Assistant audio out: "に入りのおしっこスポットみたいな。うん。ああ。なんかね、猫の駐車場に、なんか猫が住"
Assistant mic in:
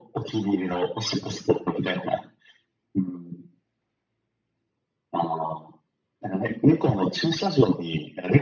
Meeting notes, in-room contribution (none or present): none